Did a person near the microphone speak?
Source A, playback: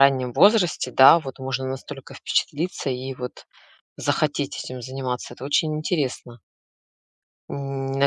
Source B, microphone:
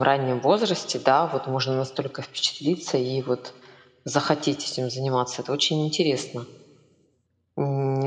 No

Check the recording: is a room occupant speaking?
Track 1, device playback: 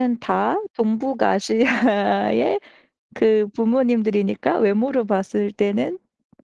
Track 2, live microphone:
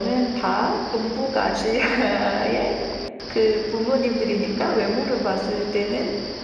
No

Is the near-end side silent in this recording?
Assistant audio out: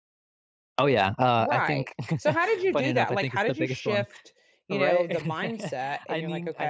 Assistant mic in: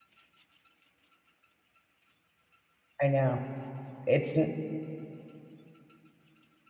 No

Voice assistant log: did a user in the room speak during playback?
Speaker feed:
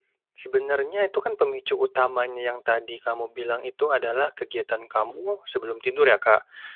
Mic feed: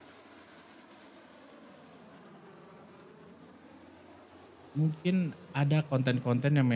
Yes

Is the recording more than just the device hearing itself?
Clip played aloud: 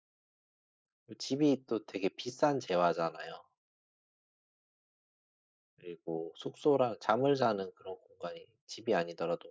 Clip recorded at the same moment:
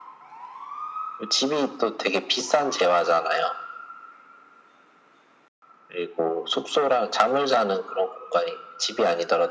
No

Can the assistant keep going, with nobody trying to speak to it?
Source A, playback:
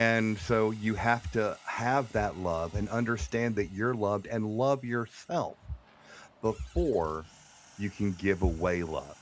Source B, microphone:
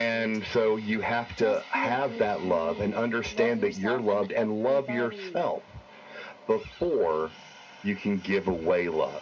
No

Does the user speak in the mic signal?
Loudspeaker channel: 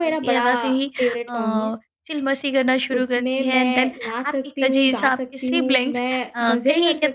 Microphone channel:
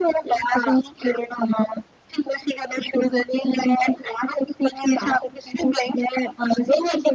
No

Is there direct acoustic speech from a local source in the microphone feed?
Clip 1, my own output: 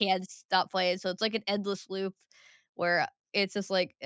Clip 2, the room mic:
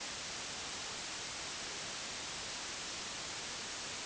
No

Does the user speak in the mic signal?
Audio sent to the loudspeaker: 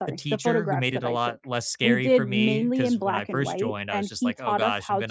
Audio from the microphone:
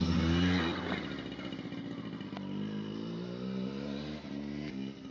No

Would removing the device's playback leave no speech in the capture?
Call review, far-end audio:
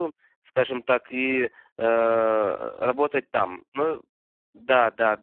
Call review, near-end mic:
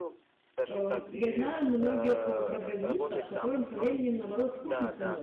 No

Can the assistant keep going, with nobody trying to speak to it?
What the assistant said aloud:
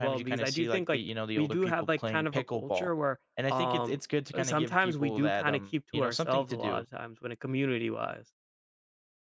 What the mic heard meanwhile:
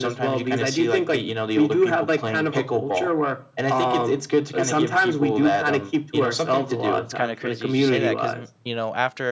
No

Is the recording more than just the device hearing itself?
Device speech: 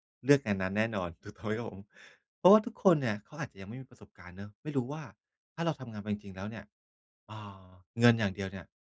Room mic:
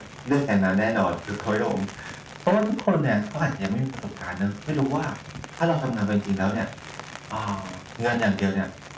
No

